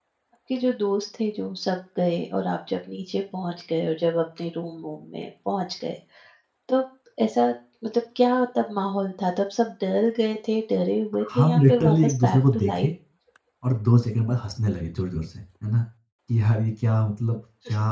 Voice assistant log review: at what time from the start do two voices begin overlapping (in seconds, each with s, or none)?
11.1 s